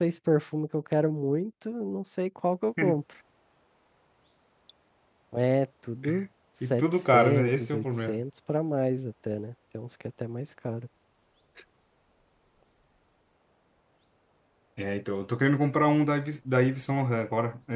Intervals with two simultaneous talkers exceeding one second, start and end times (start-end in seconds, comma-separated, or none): 6.7-8.2